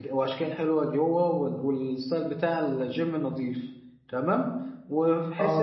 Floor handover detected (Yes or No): No